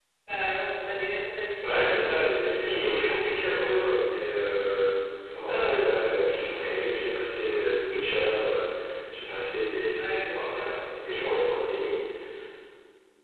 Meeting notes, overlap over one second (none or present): present